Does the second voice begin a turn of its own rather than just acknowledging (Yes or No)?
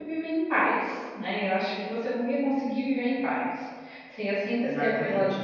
No